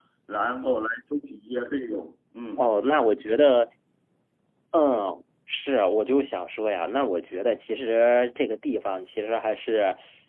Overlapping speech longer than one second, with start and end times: none

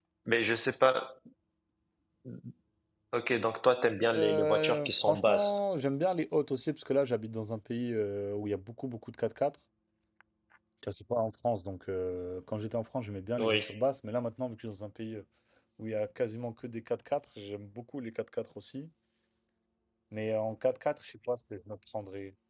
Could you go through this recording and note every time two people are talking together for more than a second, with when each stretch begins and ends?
4.0-5.6

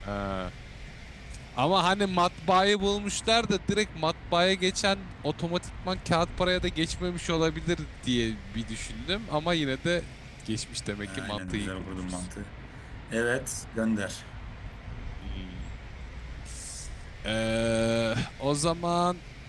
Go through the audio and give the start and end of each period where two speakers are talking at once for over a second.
11.1-12.3

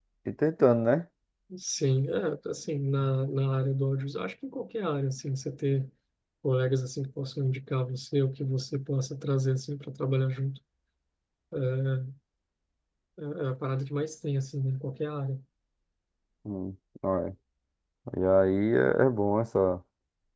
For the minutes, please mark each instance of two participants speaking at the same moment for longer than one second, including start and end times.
none

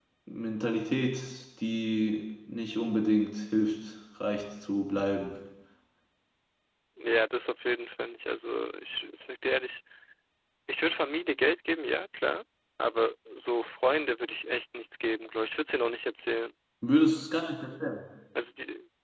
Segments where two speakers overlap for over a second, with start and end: none

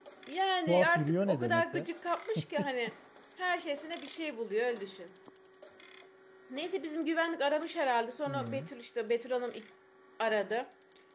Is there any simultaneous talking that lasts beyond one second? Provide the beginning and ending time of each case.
0.7-1.9

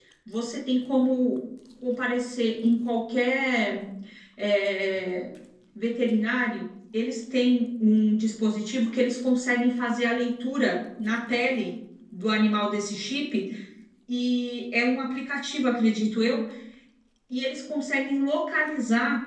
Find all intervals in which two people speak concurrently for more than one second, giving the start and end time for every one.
none

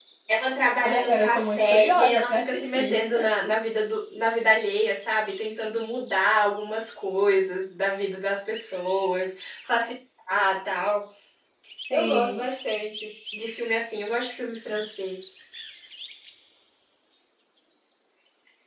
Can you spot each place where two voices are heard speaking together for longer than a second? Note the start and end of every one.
0.8-3.0

